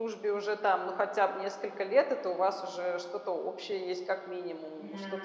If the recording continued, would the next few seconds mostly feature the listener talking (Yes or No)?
No